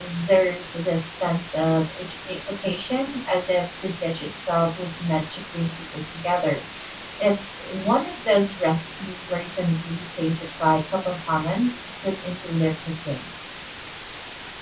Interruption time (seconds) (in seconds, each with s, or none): none